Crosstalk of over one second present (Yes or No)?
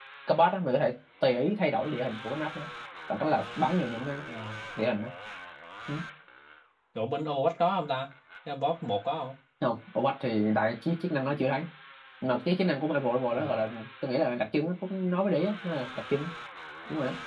No